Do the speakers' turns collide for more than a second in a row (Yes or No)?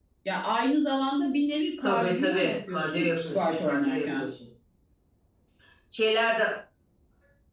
Yes